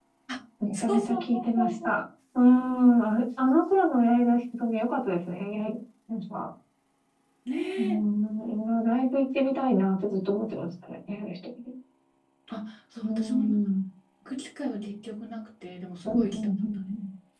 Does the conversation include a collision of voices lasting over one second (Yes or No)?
Yes